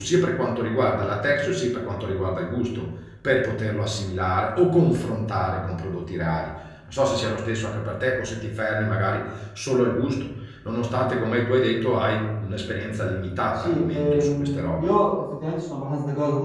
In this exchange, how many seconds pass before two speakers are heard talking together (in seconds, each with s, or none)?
13.5 s